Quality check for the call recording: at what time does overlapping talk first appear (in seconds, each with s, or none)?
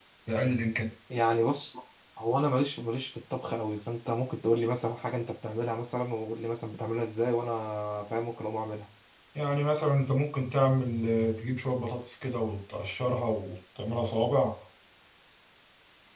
none